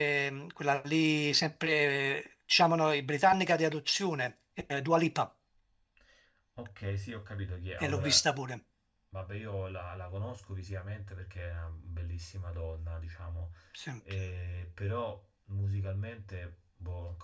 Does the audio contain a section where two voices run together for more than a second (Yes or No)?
No